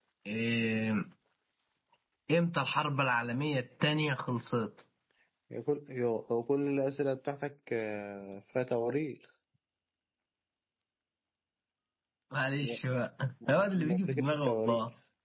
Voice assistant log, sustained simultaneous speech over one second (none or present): present